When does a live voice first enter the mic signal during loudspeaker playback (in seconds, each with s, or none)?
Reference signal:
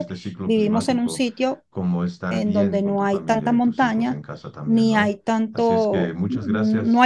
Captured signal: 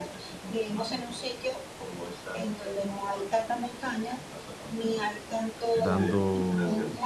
5.8 s